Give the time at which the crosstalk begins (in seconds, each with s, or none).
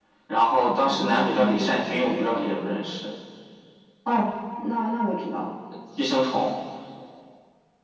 0.7 s